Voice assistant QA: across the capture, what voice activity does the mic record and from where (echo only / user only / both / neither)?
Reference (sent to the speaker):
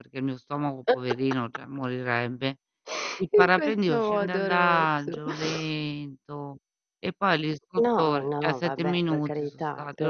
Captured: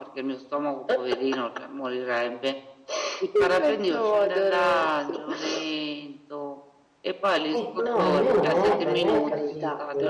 both